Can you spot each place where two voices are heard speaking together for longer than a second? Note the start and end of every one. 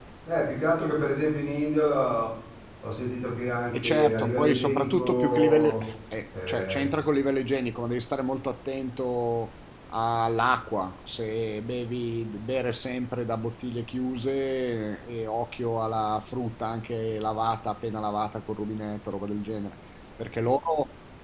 3.7-5.8

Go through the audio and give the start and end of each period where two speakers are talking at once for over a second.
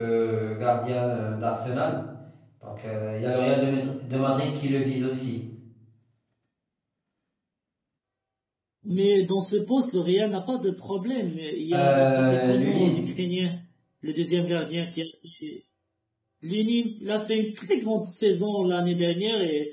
11.7-13.0

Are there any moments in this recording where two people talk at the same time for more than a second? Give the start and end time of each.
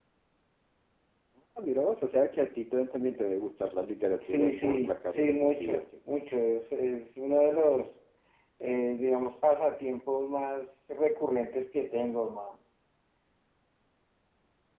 4.2-5.8

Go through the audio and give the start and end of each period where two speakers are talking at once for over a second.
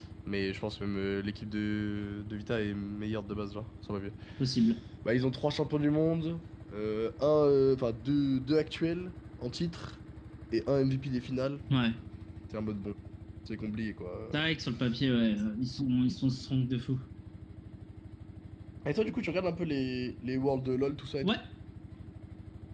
none

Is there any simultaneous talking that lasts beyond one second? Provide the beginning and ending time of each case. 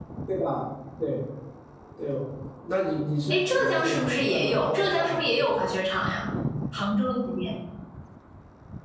3.3-5.6

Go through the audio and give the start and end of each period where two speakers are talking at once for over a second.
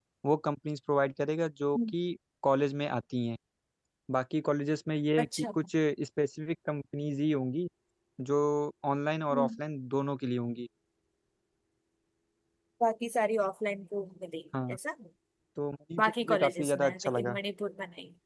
16.0-17.4

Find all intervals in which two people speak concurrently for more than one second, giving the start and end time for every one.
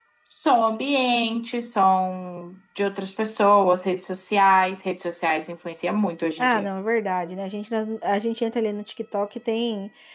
none

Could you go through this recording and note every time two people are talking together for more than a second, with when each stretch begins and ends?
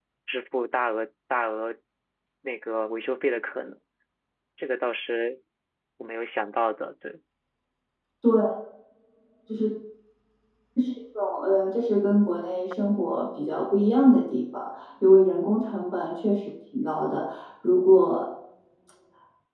none

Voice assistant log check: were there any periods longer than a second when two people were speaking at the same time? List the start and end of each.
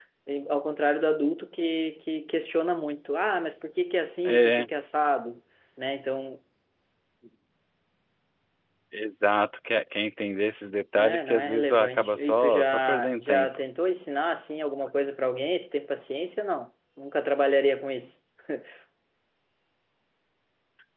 10.9-13.6

